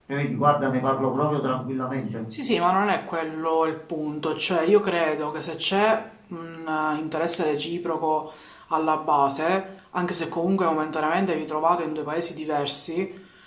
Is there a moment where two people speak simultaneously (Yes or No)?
No